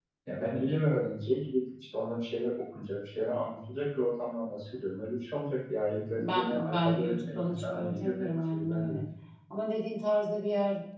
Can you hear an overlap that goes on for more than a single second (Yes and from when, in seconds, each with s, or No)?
Yes, from 6.1 s